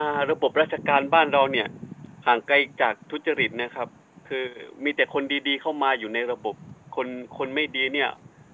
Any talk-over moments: No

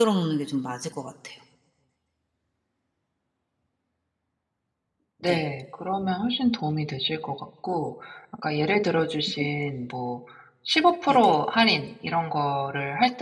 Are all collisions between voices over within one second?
Yes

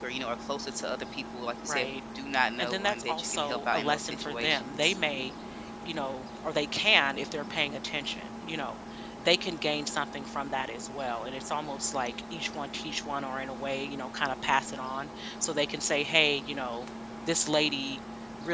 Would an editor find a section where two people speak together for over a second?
Yes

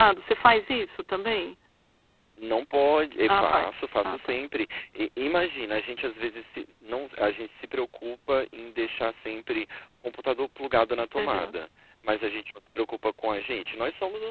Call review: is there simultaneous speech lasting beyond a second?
No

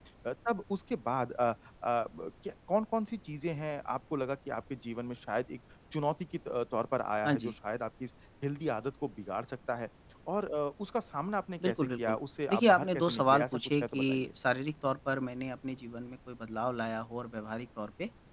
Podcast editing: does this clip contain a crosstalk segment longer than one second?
Yes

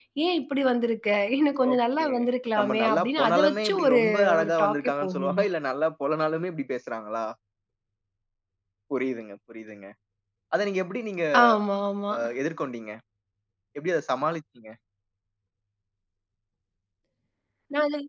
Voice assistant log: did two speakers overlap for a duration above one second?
Yes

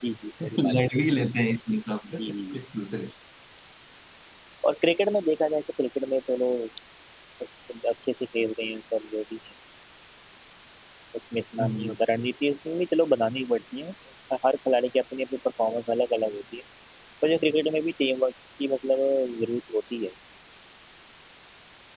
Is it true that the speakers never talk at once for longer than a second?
Yes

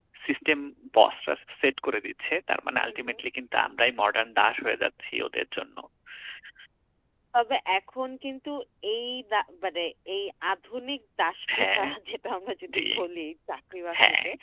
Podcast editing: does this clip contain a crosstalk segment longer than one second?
No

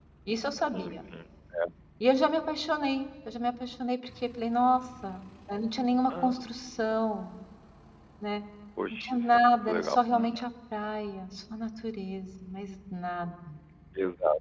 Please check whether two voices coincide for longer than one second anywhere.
Yes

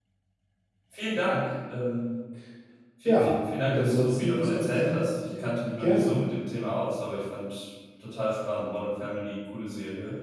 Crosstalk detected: Yes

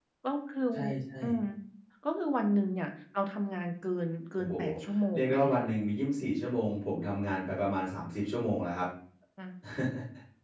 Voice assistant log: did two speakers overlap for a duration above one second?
No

